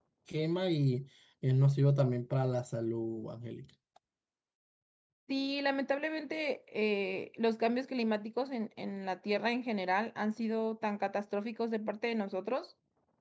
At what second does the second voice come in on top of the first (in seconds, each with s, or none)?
none